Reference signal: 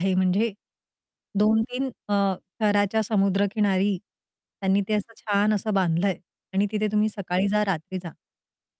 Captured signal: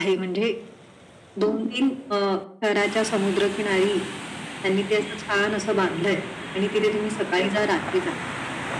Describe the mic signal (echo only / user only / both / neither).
echo only